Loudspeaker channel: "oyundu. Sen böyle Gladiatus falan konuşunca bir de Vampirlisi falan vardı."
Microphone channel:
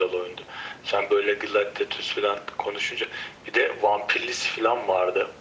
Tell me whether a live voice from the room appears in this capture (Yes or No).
No